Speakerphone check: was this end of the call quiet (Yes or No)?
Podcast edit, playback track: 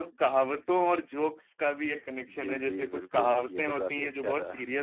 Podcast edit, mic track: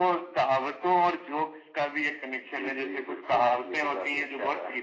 Yes